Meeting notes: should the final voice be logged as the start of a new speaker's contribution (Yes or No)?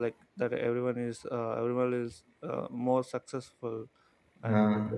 No